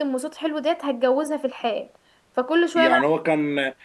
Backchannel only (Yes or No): No